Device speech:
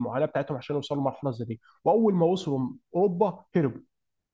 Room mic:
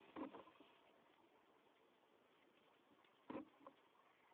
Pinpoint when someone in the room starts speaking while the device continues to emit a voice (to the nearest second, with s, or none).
none